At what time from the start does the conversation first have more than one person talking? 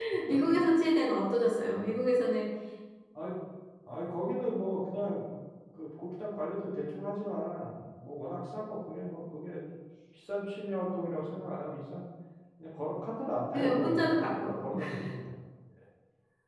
13.5 s

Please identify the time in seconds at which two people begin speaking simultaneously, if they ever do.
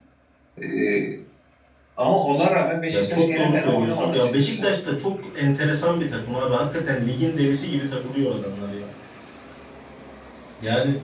2.9 s

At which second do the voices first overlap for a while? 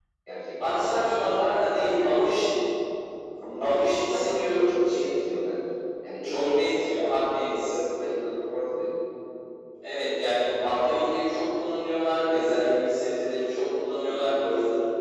0.7 s

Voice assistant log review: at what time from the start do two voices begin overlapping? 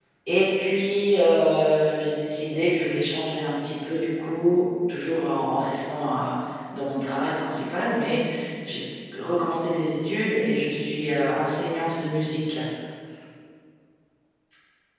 none

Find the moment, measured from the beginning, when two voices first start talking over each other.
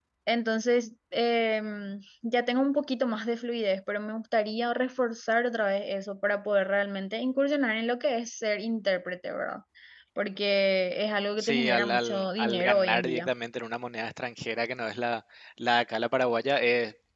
11.4 s

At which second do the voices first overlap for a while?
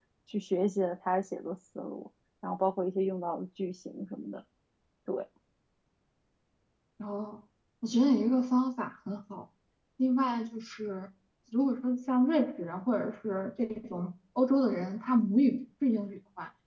none

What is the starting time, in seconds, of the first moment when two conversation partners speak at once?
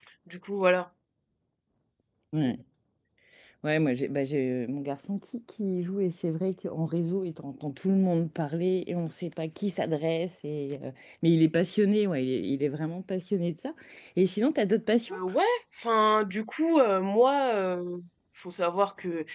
none

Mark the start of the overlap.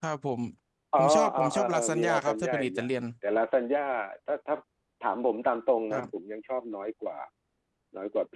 1.0 s

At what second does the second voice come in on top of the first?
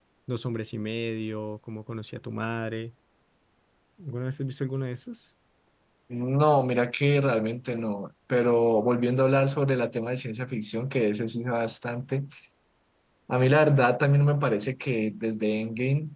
none

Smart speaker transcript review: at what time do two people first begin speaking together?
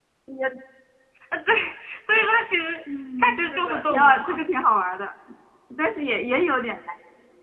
3.2 s

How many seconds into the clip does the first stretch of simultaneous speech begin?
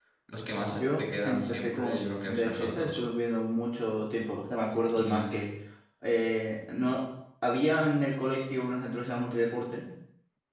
0.7 s

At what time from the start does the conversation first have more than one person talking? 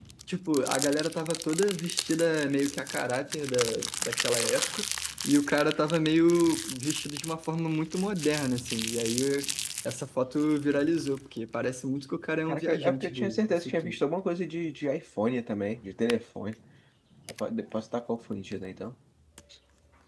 12.5 s

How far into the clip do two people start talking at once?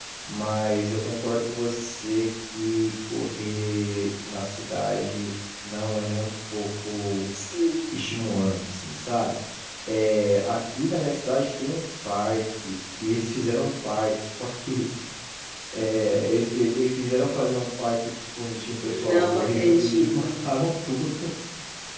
18.9 s

